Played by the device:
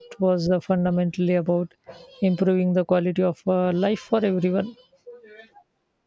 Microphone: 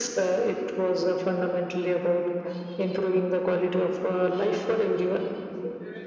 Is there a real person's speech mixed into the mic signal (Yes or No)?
No